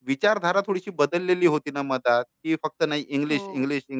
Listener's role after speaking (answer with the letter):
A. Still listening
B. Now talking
A